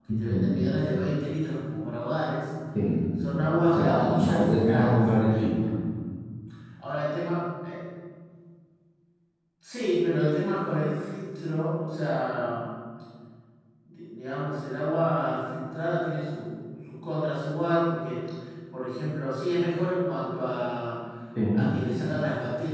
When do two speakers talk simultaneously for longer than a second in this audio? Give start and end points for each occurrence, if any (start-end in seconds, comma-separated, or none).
3.7-5.0